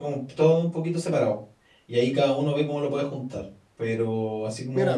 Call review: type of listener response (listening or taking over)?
taking over